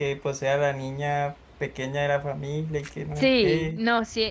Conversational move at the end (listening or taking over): taking over